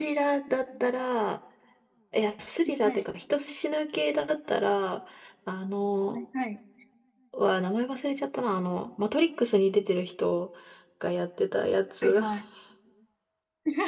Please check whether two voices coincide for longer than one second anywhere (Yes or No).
No